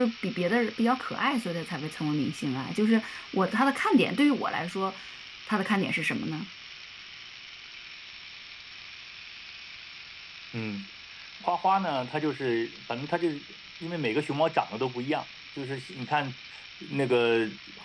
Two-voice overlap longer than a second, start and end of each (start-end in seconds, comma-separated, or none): none